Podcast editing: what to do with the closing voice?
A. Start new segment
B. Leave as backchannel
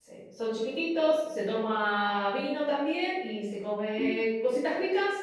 B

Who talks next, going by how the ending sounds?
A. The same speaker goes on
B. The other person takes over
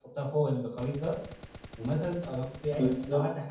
A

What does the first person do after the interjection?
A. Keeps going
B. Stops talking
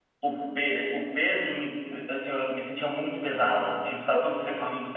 A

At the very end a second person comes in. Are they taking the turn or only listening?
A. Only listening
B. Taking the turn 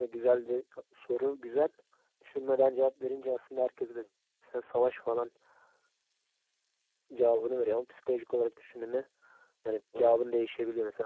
A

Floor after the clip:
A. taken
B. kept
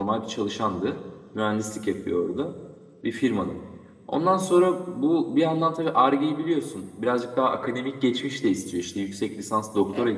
B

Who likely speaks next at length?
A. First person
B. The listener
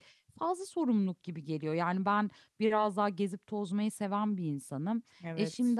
A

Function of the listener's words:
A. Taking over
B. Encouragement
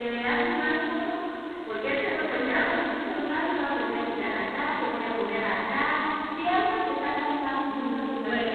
A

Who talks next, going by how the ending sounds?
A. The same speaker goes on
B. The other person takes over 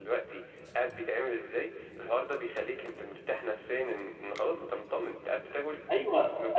B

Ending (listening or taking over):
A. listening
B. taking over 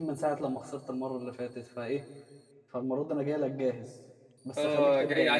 B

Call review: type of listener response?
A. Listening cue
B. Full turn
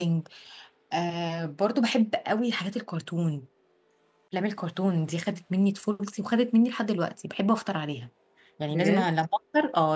A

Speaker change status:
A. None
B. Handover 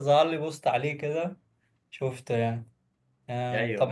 A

